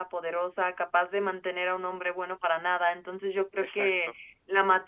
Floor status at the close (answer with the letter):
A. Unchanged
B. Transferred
A